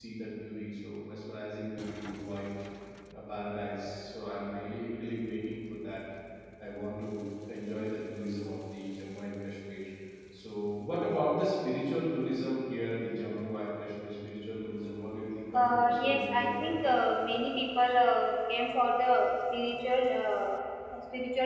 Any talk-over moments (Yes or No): Yes